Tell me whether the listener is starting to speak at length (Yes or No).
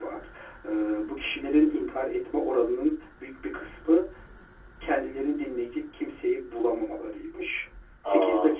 No